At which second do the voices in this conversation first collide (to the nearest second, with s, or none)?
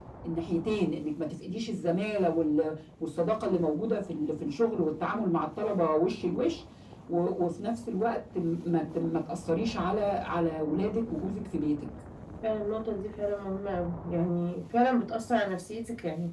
none